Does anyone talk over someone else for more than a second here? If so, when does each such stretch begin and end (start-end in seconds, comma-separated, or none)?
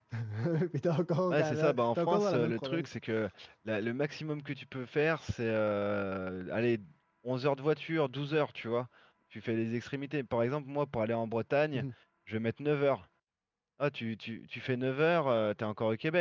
1.3-2.9